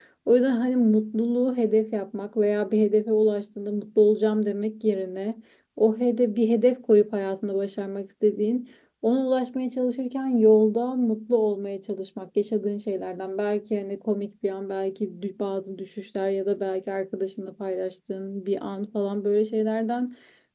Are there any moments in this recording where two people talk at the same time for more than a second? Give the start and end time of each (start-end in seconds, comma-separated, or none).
none